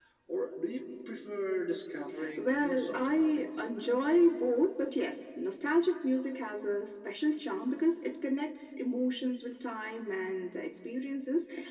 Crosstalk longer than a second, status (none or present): present